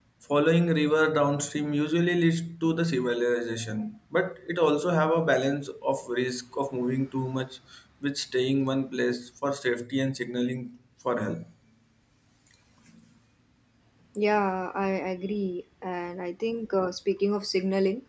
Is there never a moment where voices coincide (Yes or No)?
Yes